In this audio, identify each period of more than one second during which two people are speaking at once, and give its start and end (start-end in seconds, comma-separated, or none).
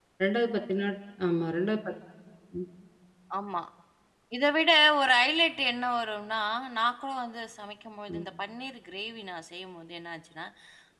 none